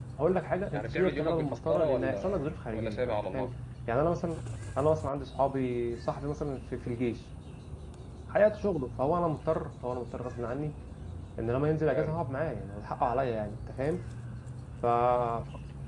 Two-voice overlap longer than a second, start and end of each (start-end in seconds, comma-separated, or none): 0.7-3.5